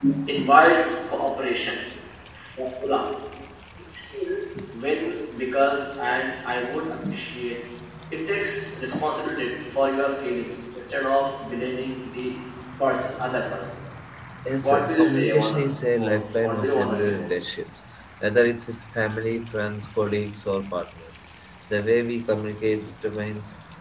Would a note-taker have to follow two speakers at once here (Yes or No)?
Yes